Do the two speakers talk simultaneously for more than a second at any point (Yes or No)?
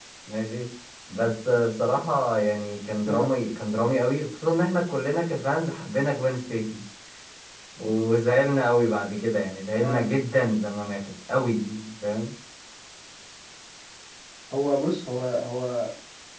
No